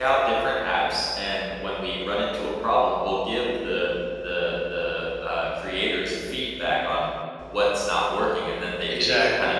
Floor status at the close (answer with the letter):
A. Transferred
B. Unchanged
B